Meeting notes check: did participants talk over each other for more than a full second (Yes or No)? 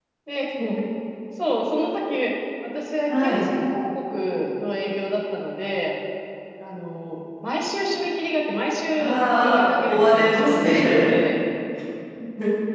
Yes